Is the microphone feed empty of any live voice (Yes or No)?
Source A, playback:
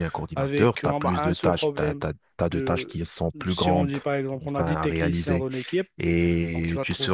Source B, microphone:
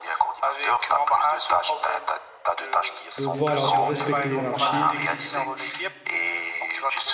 No